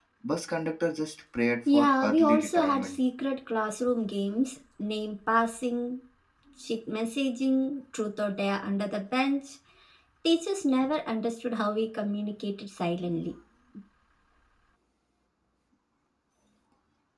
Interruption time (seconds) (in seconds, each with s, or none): 1.7 s